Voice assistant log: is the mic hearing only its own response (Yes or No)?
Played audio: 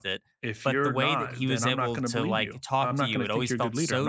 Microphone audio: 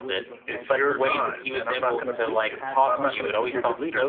No